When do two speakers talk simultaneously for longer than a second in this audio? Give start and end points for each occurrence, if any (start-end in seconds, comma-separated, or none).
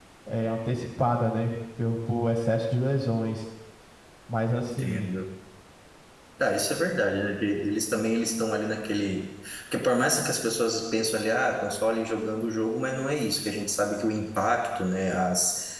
none